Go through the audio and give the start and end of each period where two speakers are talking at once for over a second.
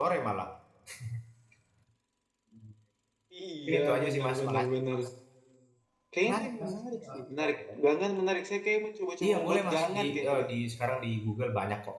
3.7-5.0, 6.2-7.5, 9.2-10.5

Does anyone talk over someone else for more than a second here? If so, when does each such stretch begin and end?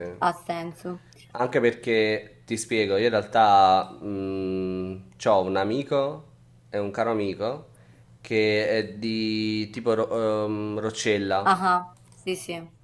none

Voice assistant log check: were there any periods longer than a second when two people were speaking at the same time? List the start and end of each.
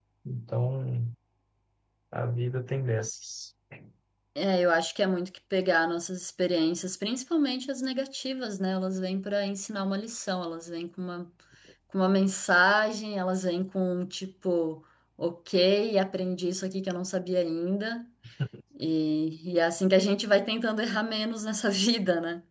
none

